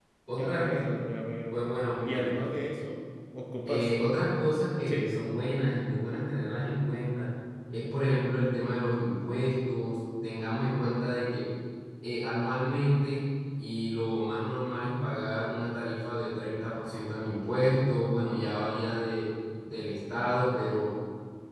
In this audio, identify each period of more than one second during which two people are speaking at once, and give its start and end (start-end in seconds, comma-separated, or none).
none